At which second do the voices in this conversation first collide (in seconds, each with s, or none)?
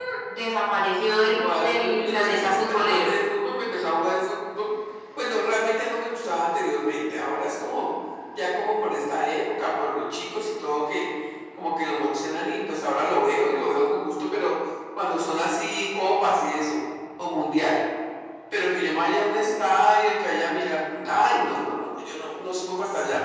1.2 s